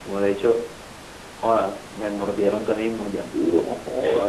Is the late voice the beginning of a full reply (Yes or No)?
No